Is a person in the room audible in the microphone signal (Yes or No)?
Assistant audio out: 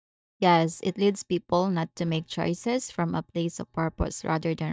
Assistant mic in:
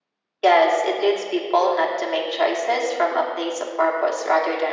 No